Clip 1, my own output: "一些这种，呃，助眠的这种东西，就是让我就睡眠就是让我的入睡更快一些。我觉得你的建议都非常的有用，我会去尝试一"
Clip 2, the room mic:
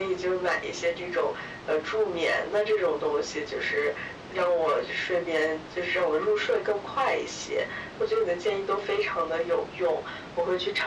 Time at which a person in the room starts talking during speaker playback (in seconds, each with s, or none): none